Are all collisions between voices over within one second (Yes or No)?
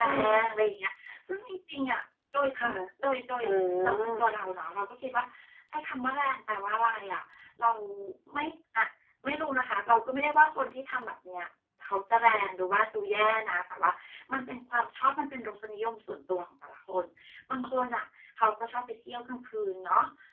Yes